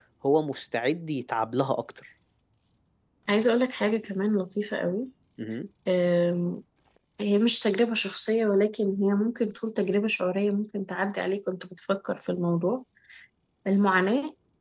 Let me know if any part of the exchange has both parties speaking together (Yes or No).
No